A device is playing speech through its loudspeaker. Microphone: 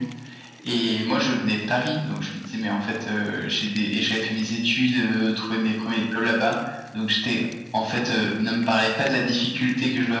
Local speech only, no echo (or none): none